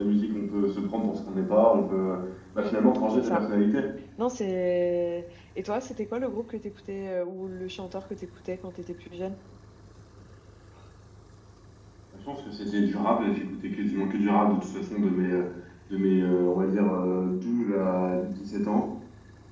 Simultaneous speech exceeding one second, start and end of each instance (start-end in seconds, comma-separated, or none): none